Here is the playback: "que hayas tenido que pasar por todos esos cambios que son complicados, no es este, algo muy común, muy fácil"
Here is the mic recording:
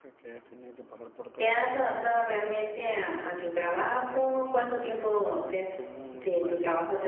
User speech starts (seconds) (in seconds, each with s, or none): 1.3 s